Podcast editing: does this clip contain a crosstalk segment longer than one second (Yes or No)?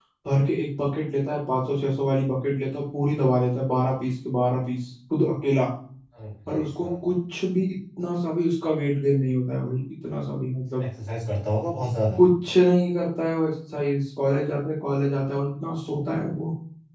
No